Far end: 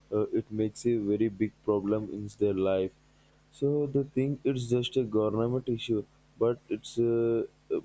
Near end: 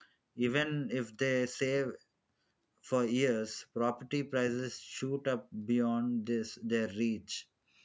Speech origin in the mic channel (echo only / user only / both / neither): user only